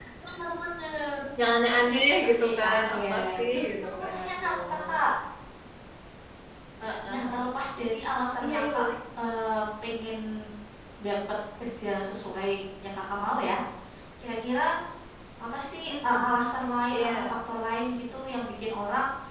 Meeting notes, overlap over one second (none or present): present